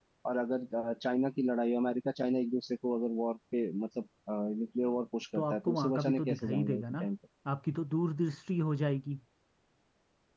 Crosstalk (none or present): present